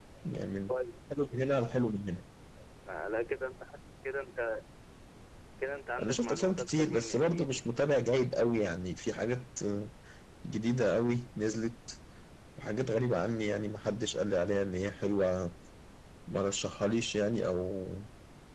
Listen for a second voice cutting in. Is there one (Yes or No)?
Yes